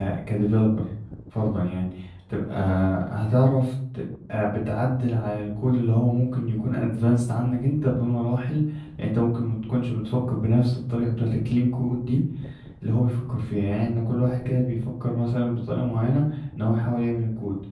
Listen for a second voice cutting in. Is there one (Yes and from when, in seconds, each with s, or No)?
No